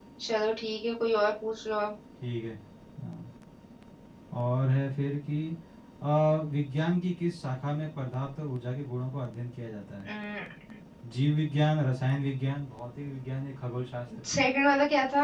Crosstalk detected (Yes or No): No